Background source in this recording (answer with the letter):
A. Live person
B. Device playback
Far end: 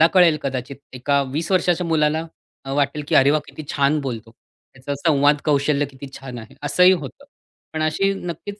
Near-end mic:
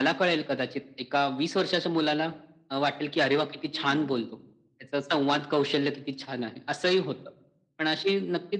A